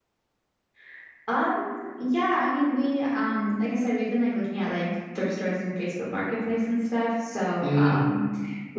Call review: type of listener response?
listening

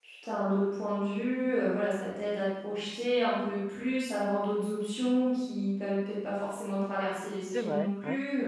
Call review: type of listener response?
taking over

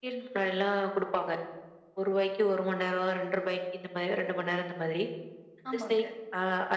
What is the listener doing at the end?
listening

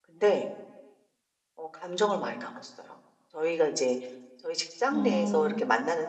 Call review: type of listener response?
listening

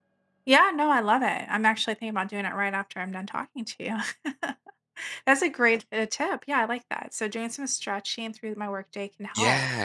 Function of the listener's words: taking over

